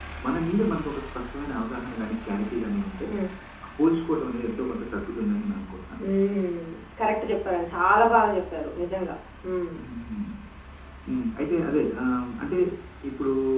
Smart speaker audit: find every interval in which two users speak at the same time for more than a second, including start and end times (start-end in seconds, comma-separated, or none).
none